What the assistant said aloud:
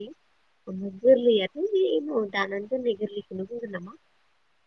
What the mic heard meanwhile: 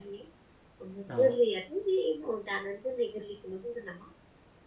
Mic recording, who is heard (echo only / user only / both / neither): both